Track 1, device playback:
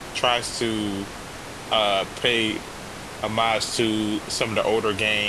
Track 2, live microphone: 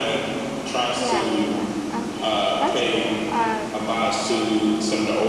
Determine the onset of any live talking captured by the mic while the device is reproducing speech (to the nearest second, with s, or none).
1 s